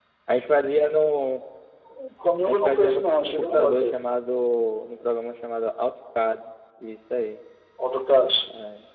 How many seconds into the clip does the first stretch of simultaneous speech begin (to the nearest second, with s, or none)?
2 s